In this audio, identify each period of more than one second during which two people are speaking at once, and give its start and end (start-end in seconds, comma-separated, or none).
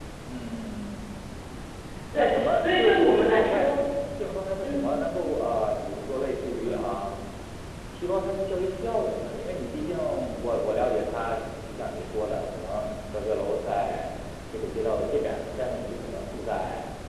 2.2-3.7